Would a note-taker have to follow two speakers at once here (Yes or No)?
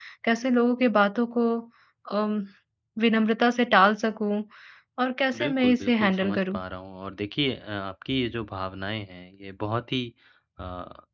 Yes